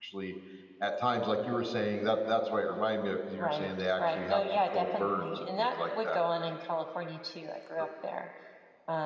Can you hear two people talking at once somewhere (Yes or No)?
Yes